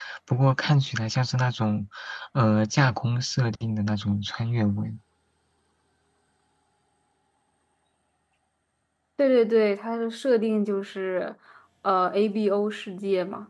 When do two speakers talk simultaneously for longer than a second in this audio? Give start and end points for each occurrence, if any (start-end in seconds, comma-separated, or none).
none